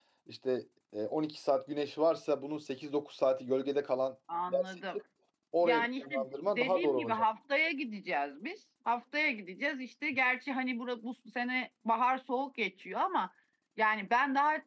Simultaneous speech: Yes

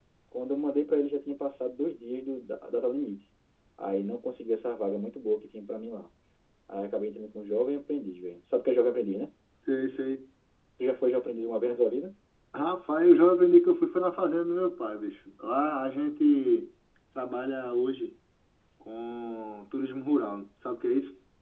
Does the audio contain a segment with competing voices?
No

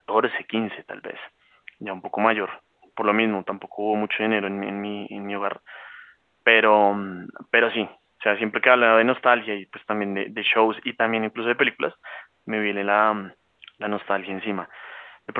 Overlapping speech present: No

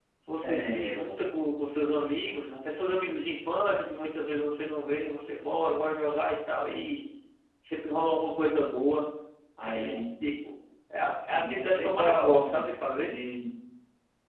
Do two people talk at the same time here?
Yes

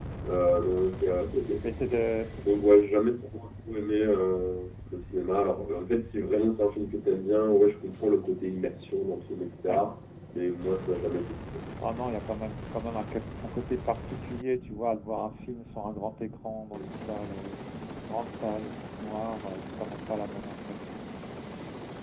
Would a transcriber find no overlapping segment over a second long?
Yes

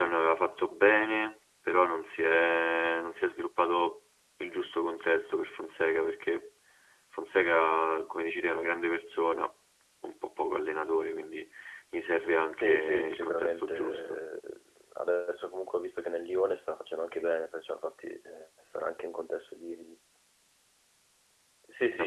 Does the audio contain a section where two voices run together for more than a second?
Yes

